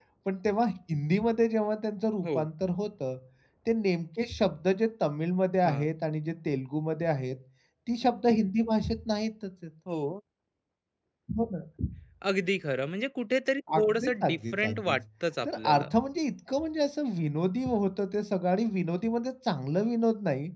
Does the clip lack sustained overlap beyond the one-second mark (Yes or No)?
No